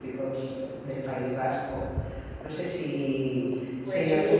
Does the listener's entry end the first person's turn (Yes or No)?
No